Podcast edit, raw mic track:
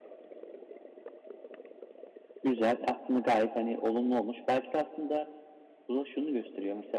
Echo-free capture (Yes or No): Yes